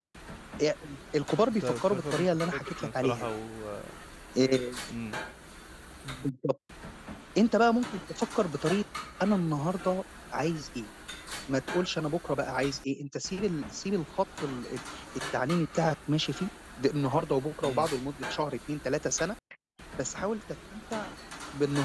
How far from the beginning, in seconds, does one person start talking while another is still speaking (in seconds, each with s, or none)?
1.5 s